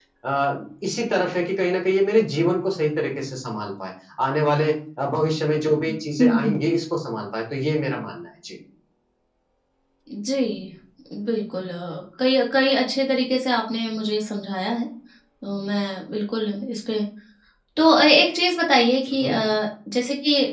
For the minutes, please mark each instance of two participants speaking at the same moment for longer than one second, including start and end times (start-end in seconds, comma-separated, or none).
none